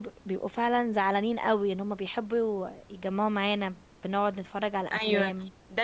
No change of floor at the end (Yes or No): No